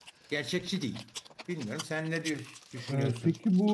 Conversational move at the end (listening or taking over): taking over